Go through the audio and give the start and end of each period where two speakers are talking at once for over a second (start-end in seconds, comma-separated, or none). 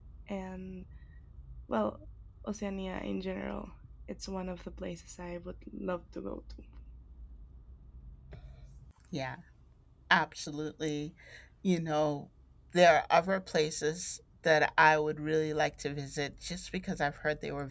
none